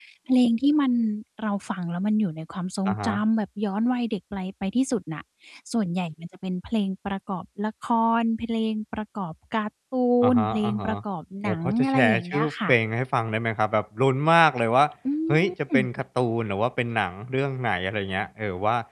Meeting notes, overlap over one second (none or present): present